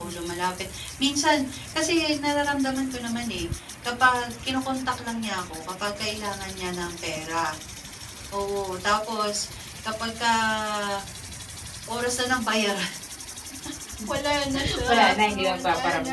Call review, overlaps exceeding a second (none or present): present